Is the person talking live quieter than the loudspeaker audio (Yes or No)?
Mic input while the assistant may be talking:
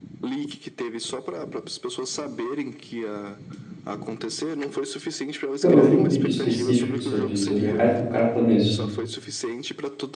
No